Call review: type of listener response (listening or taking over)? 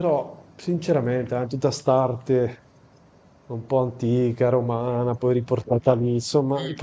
listening